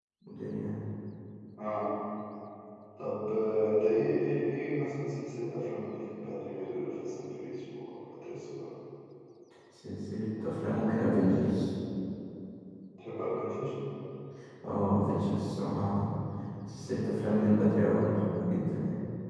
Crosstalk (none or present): none